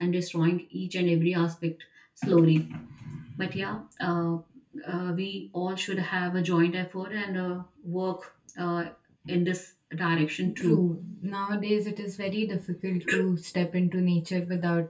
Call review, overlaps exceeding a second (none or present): none